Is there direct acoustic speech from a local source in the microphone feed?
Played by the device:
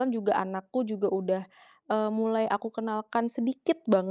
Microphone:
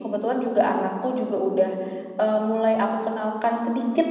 No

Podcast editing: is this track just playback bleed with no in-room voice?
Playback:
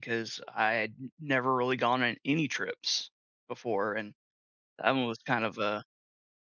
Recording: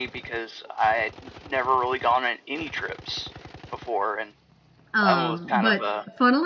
No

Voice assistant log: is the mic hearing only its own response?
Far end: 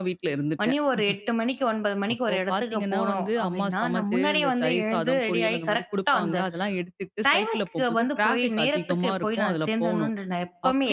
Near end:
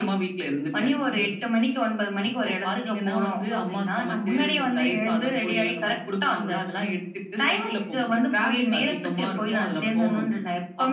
Yes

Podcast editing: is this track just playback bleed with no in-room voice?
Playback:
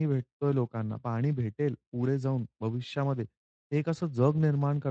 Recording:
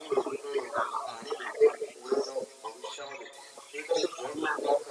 Yes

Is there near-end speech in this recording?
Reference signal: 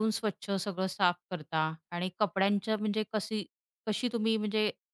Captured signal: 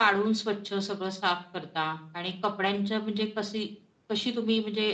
No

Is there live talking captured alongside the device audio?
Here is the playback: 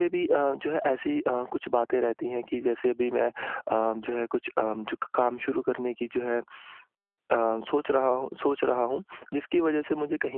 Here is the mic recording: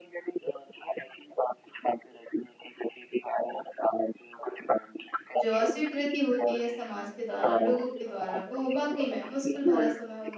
Yes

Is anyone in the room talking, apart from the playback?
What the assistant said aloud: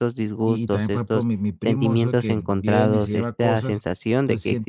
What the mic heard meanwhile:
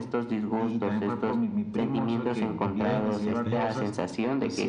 Yes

